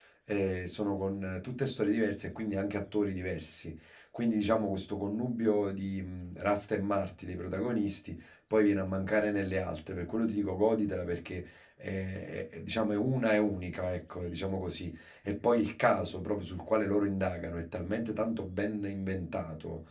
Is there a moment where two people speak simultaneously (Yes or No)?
No